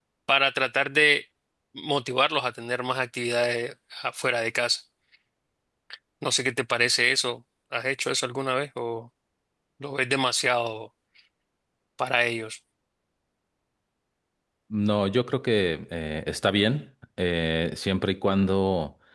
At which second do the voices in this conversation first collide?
none

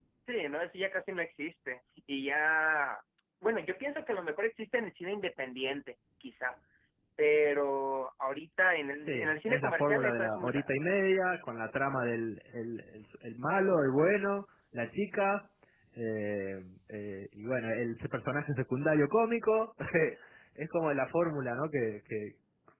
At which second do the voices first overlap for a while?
9.1 s

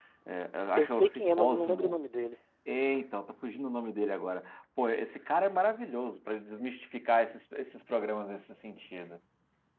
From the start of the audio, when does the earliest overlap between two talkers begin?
0.8 s

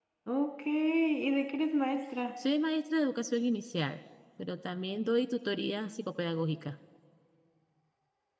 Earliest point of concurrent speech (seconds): none

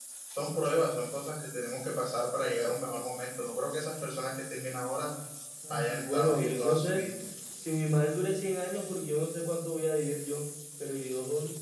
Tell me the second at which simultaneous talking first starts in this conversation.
5.7 s

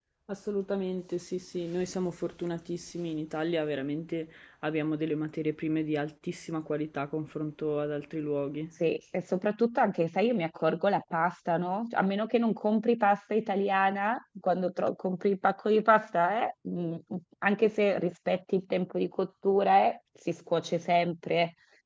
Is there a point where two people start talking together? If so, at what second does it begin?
none

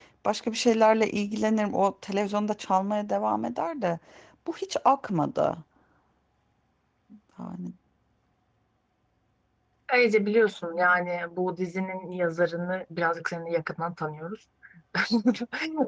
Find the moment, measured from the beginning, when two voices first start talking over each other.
none

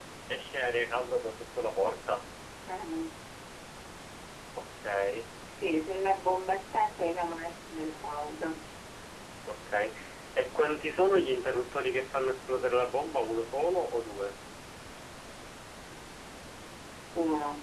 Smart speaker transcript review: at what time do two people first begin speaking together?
none

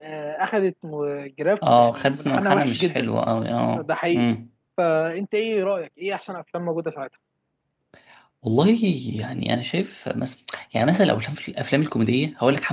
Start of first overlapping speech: 1.8 s

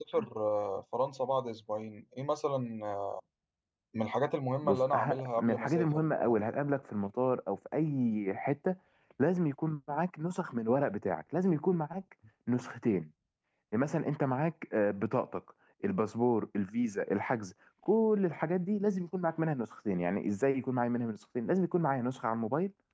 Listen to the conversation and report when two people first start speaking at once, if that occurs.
4.6 s

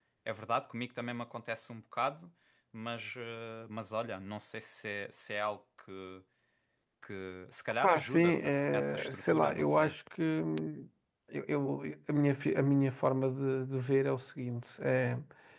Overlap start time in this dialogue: 7.8 s

